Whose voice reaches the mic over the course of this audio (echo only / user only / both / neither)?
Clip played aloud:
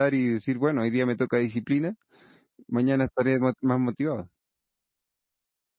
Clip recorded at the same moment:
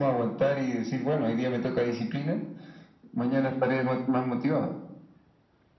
echo only